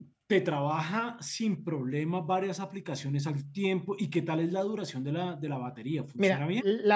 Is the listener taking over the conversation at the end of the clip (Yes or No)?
Yes